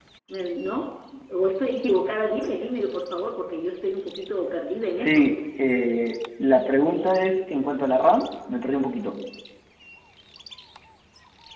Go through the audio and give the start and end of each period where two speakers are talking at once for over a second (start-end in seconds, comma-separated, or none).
none